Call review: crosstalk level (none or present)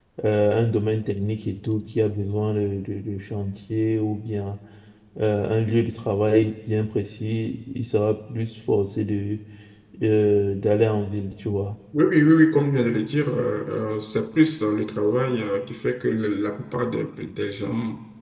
none